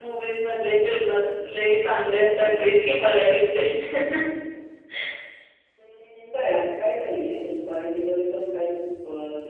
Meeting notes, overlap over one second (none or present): none